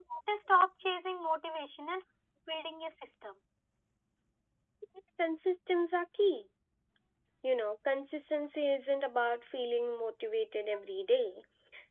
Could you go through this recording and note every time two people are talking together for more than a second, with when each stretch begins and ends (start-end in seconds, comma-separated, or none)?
none